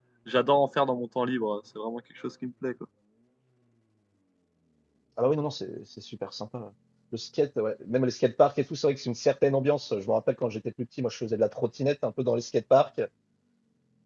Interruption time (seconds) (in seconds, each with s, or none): none